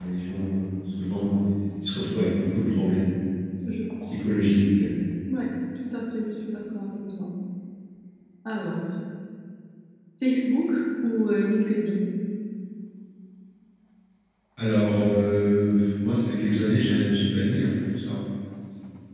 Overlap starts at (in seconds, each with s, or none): none